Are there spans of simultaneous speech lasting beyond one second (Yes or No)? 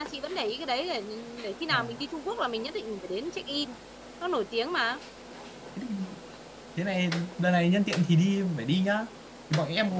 No